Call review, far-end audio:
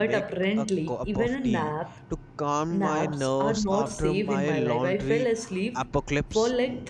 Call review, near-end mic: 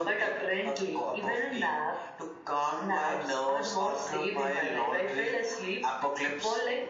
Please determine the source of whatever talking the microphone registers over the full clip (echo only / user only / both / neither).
echo only